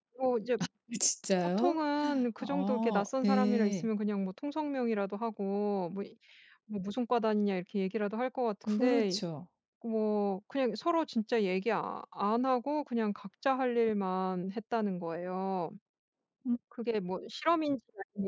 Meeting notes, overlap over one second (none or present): present